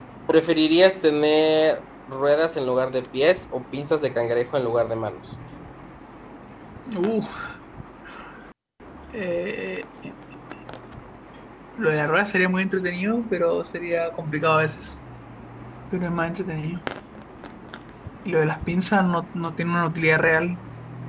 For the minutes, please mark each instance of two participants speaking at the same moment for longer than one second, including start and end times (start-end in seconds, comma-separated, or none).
none